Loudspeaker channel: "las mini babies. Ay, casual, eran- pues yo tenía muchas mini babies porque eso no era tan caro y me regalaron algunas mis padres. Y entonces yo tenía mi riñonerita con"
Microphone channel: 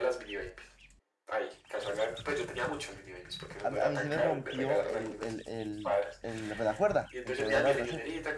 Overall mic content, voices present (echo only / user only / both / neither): both